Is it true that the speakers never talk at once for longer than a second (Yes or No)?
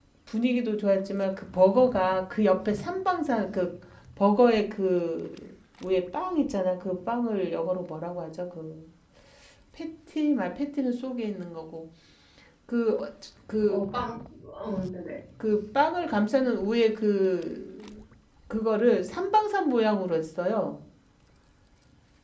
Yes